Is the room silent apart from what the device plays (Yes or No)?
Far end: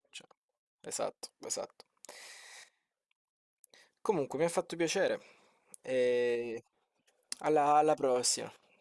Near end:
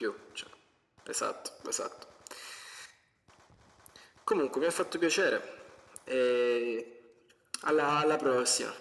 Yes